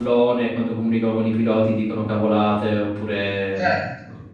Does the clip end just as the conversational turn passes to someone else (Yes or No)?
Yes